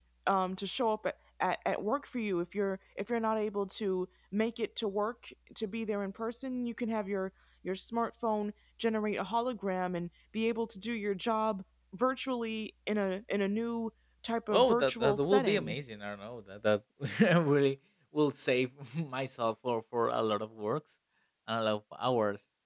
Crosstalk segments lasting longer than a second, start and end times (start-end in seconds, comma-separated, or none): 14.5-15.8